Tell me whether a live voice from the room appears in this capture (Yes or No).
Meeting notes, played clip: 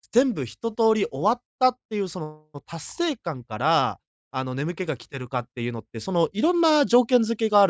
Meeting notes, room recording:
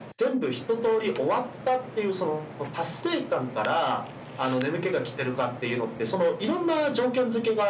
No